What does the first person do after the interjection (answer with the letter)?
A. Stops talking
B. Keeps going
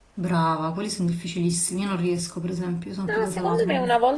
A